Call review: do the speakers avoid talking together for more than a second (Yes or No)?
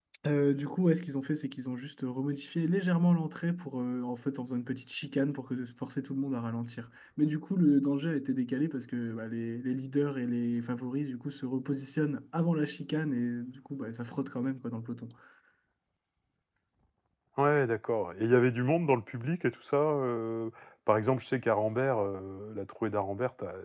Yes